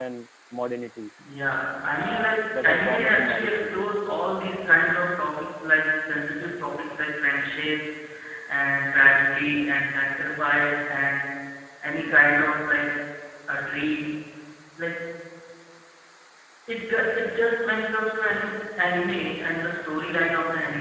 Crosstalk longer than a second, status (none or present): present